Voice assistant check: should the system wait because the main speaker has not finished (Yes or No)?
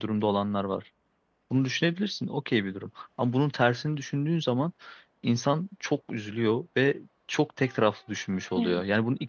Yes